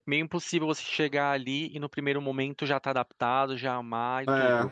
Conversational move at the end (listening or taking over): listening